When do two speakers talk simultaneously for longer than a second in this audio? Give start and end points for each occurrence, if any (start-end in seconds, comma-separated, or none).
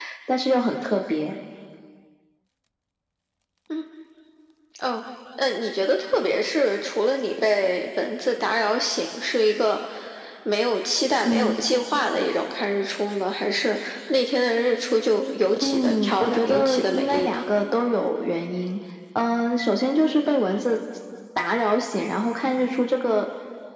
15.6-17.4